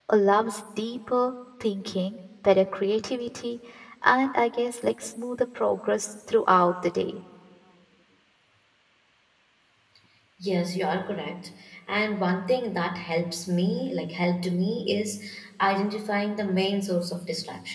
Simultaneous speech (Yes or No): No